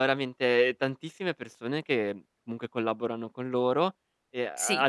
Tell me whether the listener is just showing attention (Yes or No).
No